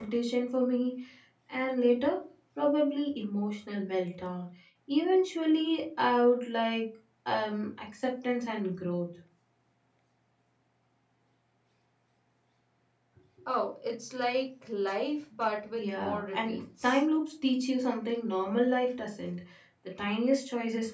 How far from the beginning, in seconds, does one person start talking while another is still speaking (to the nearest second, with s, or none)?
16 s